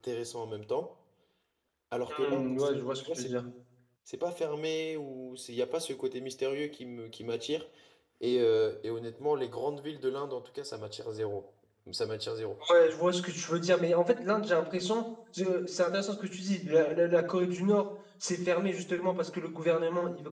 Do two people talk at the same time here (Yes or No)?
Yes